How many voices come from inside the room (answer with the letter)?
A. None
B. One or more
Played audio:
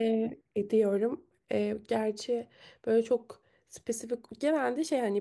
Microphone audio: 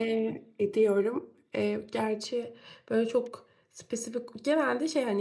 A